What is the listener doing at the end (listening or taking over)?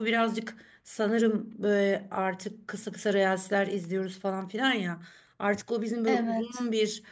listening